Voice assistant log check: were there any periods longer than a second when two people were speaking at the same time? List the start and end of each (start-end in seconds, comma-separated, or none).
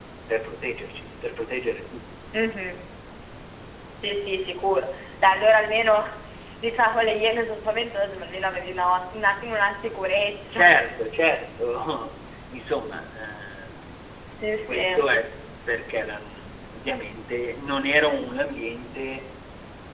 none